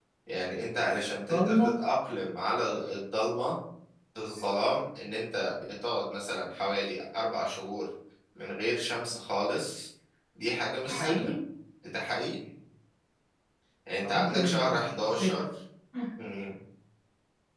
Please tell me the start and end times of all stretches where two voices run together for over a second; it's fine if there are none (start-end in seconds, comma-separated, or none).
14.0-15.3